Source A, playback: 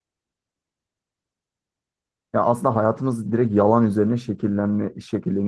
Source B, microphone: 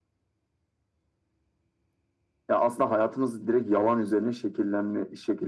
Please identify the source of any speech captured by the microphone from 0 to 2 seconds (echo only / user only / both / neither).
neither